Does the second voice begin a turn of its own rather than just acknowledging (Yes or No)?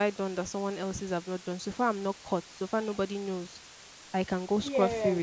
No